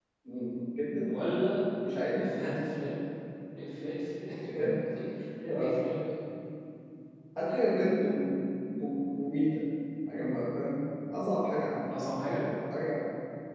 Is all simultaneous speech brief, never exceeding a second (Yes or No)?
Yes